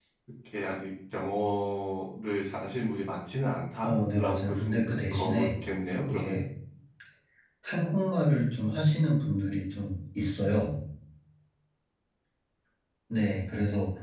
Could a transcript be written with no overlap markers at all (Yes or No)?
No